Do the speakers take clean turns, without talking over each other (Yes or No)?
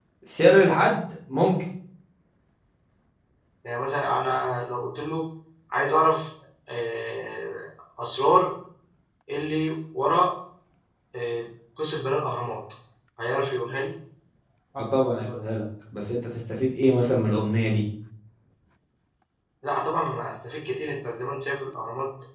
Yes